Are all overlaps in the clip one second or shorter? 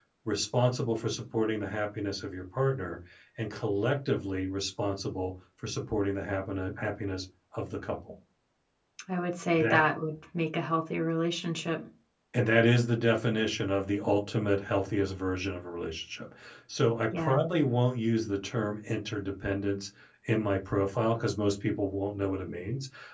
Yes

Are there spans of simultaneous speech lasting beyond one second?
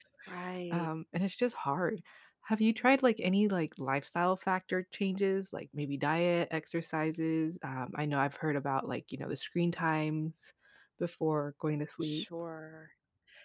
No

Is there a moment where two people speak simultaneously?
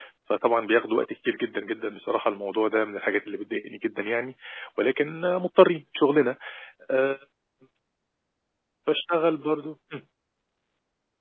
No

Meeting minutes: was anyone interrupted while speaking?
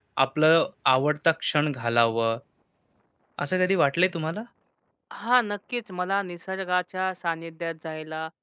No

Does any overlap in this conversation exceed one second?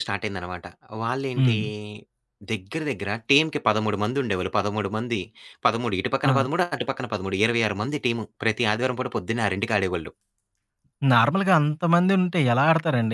No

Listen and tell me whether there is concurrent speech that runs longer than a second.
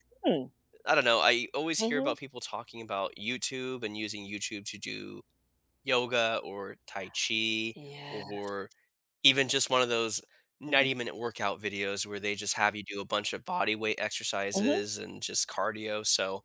No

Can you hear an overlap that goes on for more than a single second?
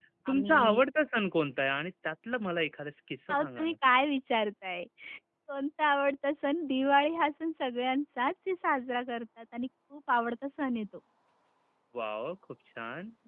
No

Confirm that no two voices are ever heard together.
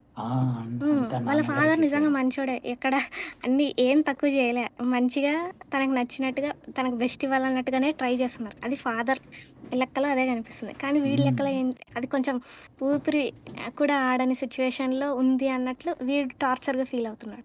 No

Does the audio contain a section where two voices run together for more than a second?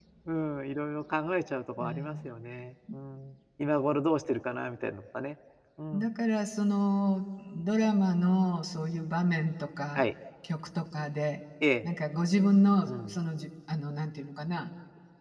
No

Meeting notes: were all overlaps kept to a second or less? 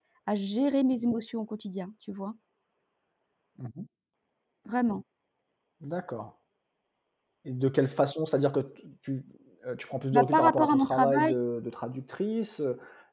No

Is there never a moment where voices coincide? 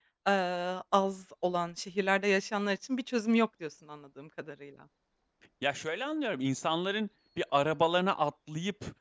Yes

